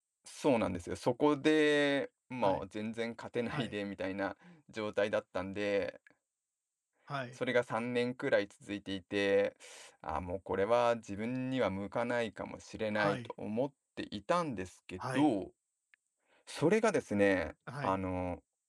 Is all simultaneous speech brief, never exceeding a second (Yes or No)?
Yes